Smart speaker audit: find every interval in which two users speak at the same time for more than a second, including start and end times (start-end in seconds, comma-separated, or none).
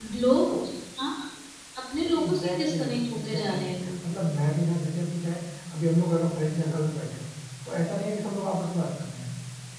2.2-3.9